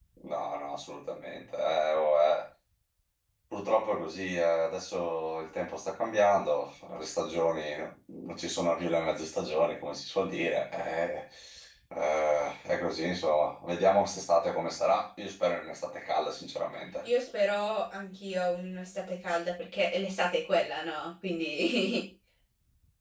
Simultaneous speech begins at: none

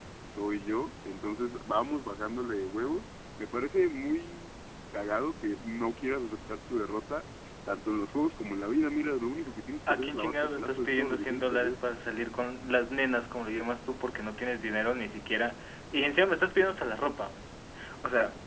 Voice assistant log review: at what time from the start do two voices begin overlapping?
10 s

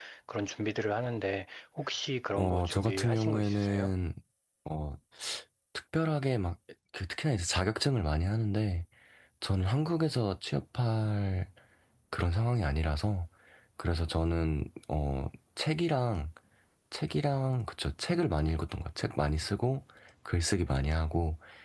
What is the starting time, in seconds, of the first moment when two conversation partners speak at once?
2 s

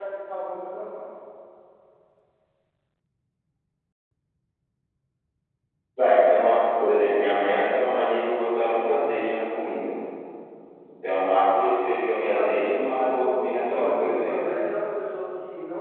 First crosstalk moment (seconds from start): 12 s

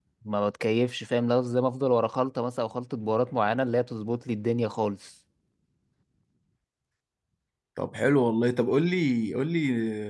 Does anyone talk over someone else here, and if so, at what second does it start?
none

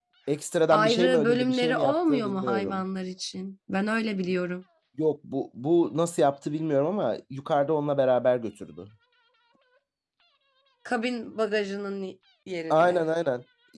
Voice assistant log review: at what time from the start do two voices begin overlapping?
1 s

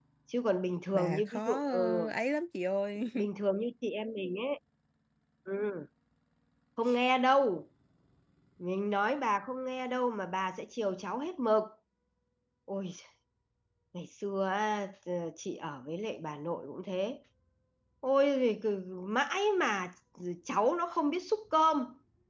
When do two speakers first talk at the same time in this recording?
1 s

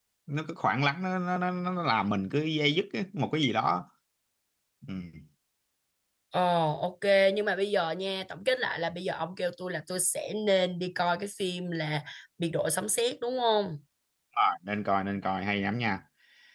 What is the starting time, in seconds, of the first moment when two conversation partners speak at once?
none

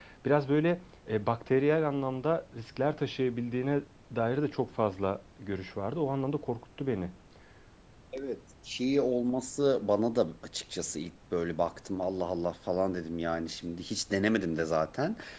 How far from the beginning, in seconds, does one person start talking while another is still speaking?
none

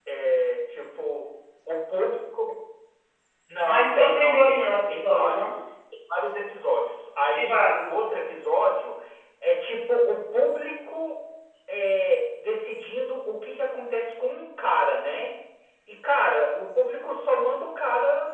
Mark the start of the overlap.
4 s

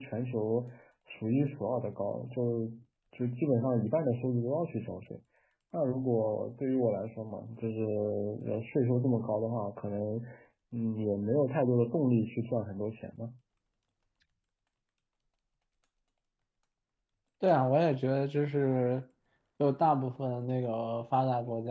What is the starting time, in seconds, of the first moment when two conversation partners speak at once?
none

